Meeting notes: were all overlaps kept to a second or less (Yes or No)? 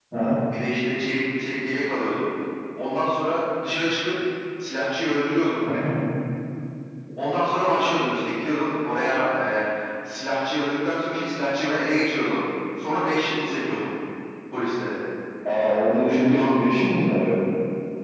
Yes